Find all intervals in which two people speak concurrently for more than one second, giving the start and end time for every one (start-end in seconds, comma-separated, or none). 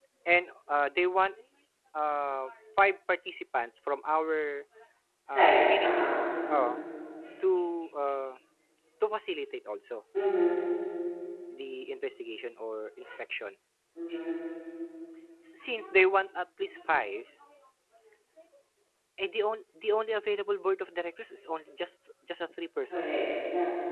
5.3-6.8